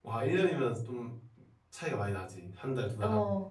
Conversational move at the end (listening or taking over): taking over